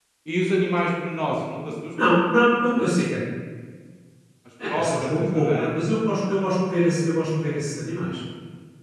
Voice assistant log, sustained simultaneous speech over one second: present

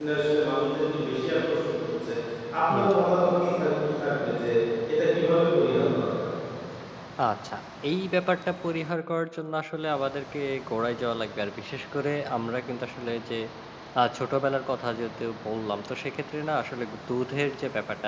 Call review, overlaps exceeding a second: none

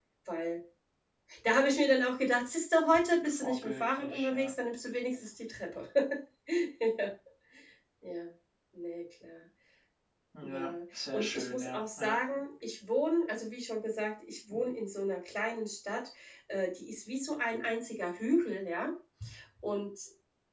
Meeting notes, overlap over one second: present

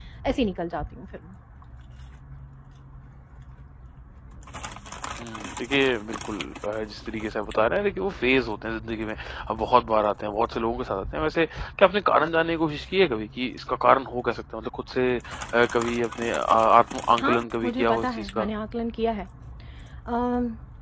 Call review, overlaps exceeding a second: present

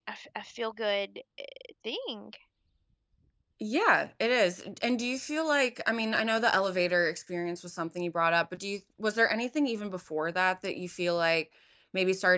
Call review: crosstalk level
none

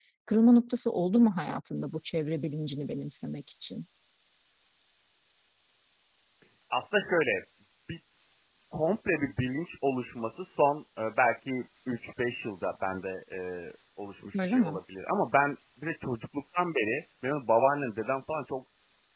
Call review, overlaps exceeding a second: none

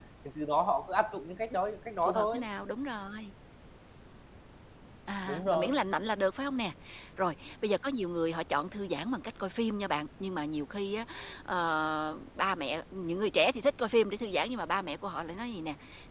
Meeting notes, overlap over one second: none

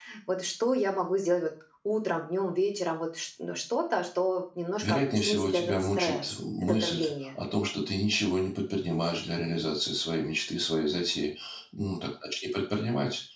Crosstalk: present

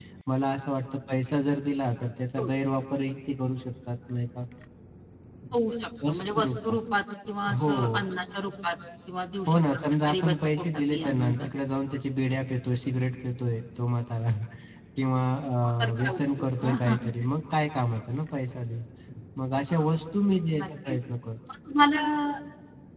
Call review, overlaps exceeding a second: present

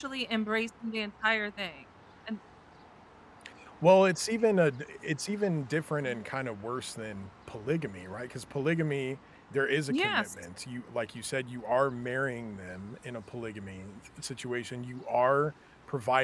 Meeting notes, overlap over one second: none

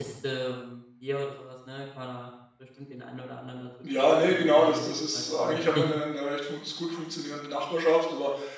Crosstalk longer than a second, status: present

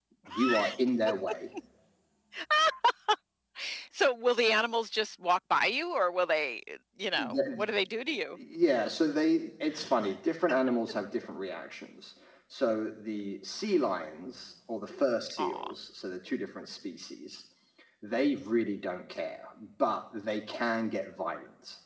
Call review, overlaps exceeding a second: none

